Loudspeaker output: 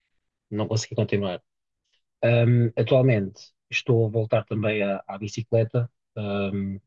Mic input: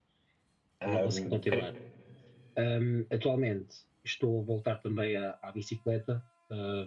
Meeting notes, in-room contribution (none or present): present